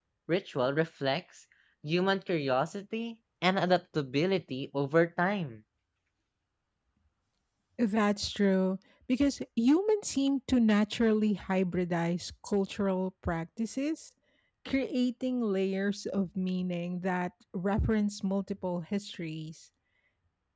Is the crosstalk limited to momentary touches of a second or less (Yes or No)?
Yes